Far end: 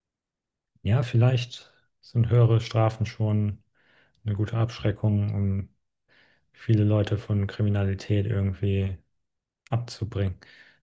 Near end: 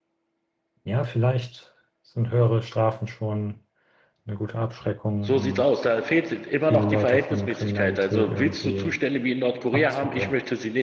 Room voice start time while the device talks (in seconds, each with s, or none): 5.2 s